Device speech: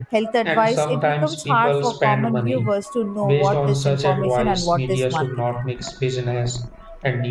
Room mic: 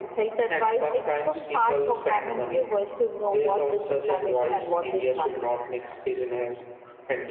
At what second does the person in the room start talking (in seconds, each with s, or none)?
none